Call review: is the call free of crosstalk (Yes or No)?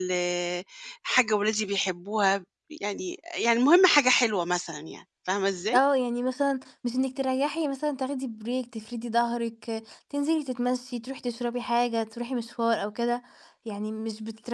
Yes